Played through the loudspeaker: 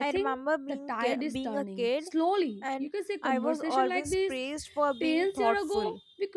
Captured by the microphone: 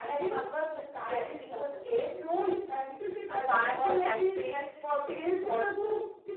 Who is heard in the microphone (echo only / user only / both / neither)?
both